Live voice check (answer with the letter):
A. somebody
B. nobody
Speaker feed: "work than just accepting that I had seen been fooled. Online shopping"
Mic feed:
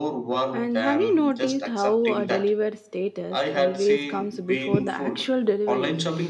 A